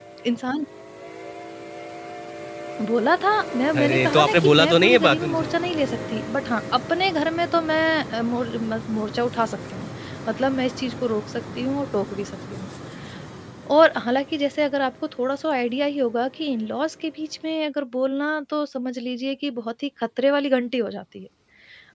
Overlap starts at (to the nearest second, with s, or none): 4 s